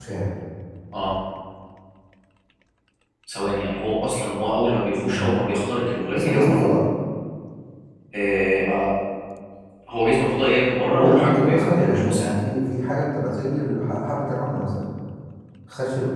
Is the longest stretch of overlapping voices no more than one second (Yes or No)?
No